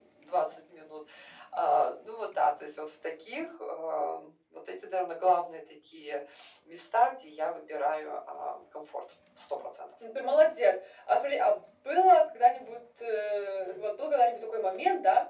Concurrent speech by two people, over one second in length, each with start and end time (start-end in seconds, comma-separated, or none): none